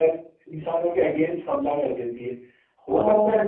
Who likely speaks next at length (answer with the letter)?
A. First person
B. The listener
A